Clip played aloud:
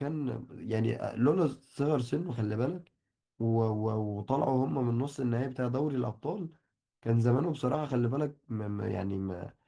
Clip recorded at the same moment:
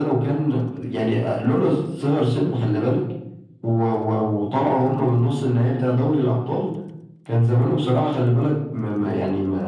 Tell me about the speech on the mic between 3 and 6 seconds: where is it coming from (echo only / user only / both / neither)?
echo only